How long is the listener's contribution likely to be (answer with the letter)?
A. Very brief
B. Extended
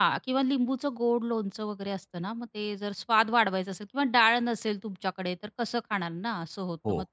A